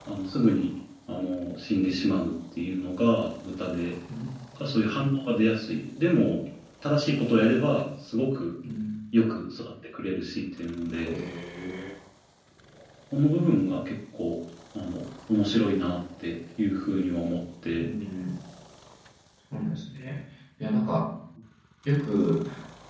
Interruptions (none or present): none